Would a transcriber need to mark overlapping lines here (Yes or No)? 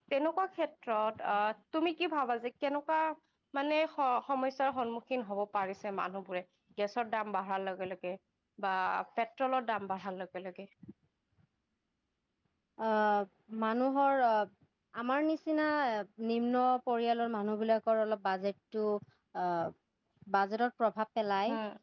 No